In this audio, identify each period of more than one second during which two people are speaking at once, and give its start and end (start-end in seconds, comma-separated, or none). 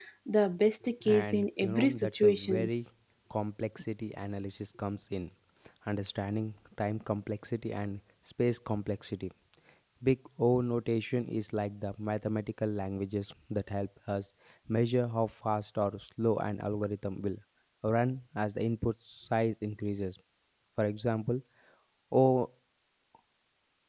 1.0-2.7